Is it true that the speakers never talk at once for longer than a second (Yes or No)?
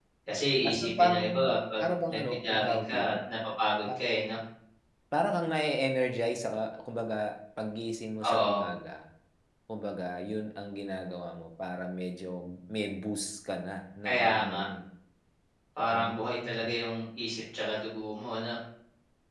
No